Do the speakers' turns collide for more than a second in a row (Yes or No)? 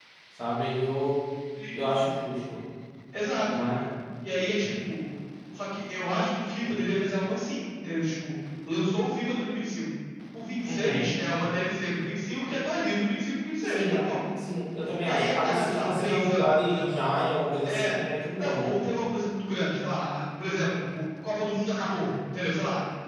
Yes